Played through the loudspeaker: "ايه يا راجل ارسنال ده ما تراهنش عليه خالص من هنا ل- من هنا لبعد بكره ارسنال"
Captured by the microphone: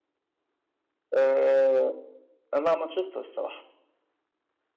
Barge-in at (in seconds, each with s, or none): 1.1 s